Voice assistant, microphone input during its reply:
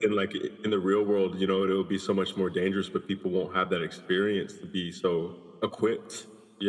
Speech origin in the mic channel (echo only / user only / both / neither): echo only